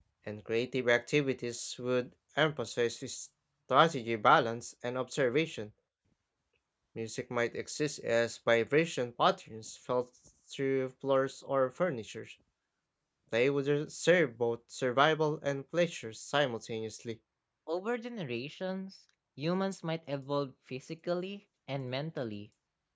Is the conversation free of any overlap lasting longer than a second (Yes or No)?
Yes